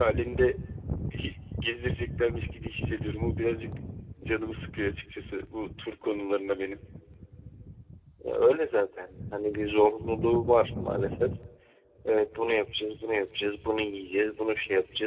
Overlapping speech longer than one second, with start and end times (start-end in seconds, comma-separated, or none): none